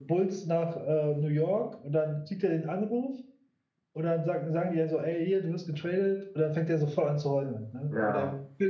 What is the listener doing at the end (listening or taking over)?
listening